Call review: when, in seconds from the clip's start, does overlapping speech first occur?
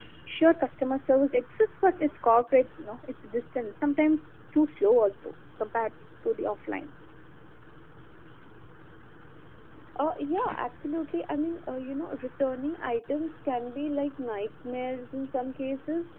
none

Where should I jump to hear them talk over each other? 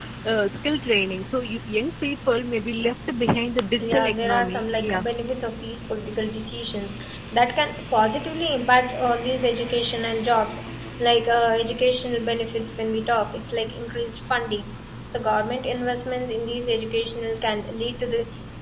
3.8 s

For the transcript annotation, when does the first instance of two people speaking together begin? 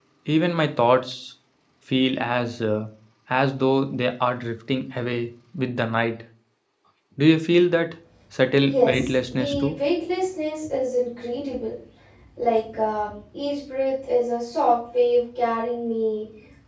8.6 s

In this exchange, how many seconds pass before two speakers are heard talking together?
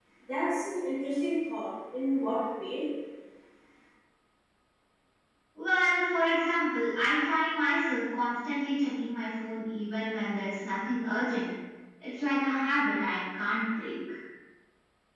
none

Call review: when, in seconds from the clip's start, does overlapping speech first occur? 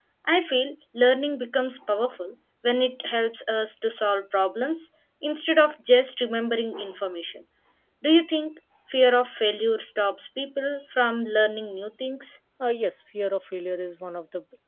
none

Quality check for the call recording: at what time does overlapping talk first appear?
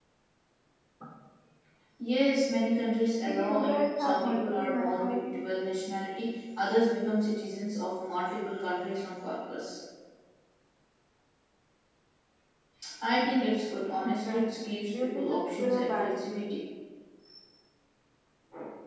3.3 s

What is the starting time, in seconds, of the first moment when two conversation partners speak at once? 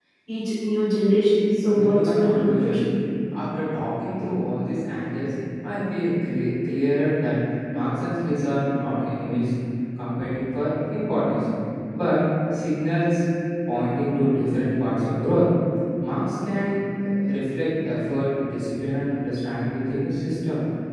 1.6 s

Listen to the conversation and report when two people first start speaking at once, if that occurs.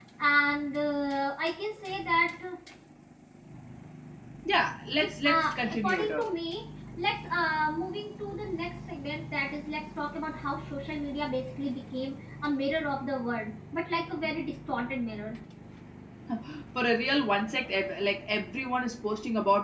5.0 s

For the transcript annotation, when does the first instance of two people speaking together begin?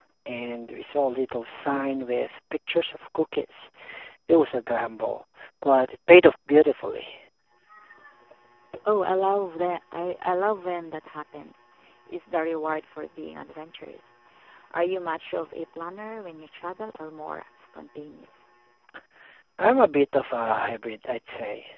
none

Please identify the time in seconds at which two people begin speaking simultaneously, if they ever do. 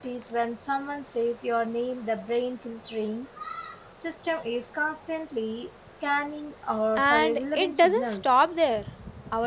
7.0 s

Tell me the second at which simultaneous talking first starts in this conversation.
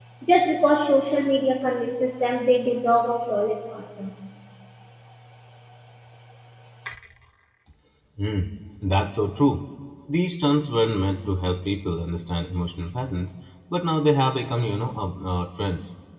none

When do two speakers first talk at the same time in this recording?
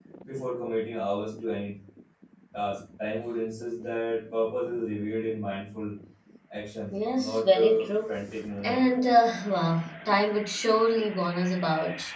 6.9 s

